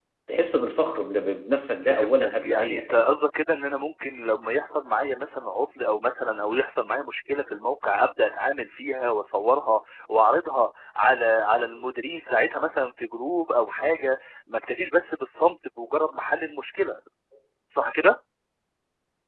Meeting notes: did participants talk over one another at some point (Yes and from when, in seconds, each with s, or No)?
Yes, from 1.8 s